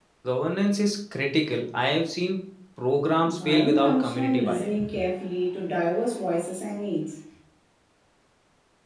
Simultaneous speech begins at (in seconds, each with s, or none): 3.2 s